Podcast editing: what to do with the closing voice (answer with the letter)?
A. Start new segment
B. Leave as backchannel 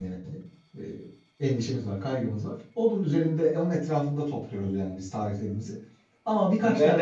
A